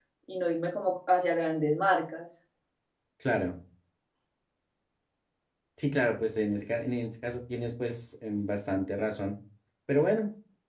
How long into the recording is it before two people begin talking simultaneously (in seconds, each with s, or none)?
none